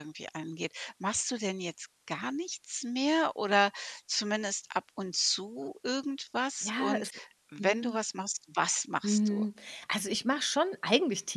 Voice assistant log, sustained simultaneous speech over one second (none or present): none